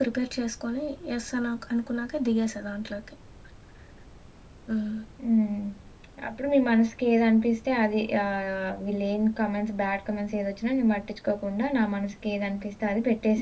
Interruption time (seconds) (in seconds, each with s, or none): none